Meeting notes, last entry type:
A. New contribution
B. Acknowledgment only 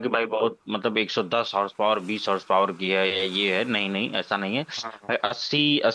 B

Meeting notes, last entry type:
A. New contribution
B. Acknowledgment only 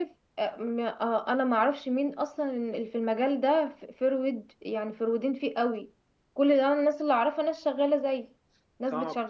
A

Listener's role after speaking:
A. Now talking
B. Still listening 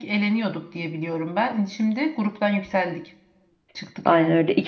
A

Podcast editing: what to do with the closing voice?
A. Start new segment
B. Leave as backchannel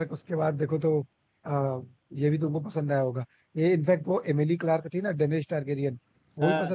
B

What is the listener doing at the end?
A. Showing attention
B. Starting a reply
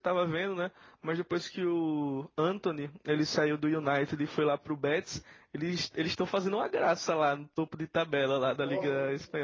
B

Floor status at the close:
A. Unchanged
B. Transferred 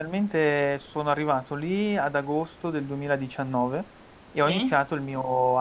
A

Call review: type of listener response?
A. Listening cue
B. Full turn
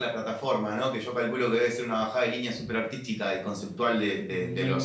B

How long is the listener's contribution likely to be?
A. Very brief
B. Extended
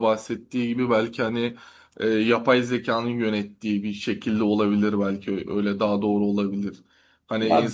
A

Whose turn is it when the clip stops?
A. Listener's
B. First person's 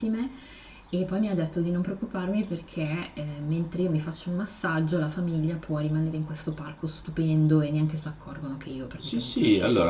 A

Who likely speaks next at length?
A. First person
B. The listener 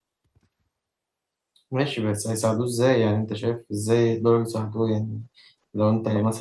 A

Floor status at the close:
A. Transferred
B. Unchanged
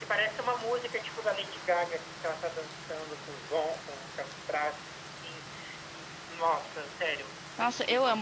A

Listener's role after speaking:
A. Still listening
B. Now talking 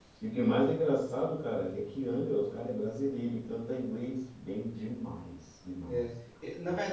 B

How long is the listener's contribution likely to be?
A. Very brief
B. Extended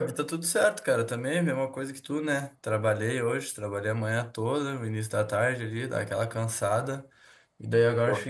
A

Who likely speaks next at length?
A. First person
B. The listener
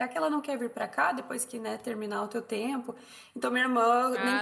A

